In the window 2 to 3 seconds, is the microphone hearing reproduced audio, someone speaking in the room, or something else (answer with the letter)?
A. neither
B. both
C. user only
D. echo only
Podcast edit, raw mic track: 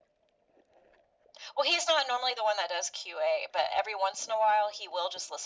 D